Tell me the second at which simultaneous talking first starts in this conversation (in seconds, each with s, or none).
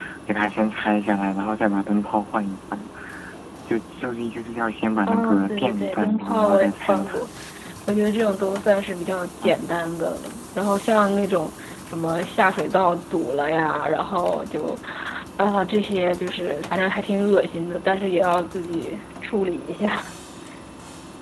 5.1 s